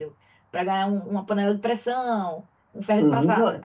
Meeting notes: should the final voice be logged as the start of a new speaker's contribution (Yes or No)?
Yes